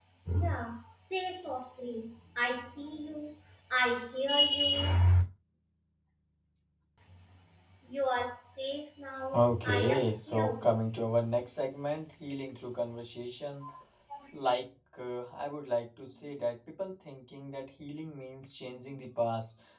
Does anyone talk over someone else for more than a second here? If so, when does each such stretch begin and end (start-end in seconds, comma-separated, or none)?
9.3-11.1